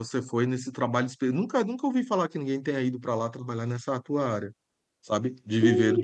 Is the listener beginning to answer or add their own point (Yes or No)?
Yes